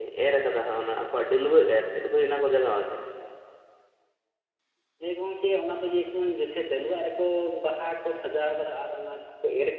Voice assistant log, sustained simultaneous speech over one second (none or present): none